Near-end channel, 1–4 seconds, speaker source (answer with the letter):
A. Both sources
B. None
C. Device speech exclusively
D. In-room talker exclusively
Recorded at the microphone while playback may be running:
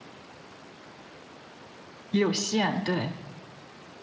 D